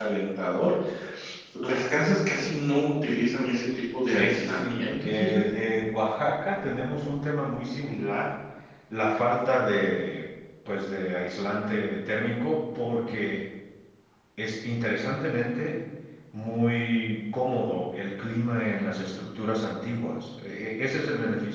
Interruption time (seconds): 4.0 s

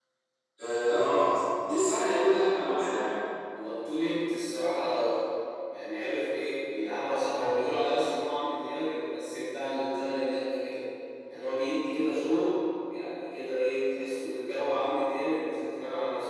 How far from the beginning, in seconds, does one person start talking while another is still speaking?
none

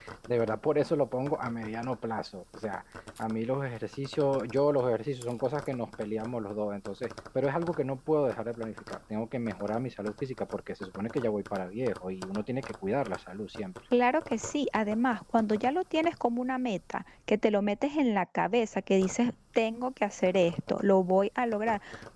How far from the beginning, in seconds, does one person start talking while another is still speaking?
none

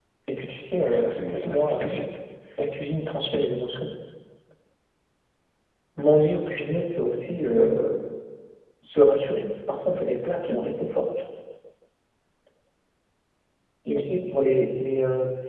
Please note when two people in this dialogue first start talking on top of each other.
0.7 s

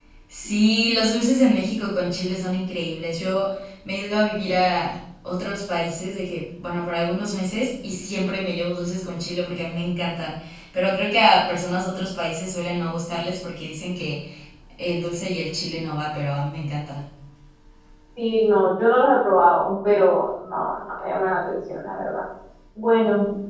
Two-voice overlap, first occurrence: none

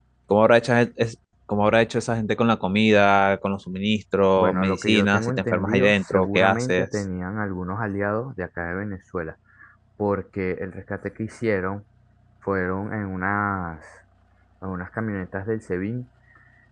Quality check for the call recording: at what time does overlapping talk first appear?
4.4 s

